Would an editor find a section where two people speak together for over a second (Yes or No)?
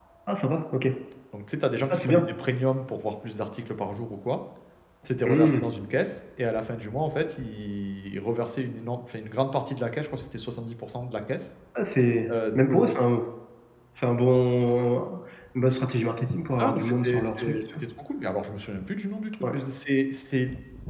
Yes